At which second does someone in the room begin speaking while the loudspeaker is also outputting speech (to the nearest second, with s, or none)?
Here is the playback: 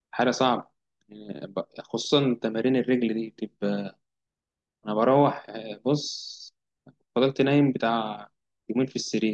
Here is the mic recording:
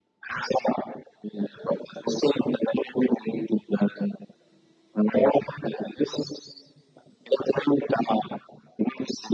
none